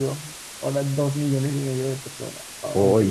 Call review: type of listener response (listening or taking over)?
taking over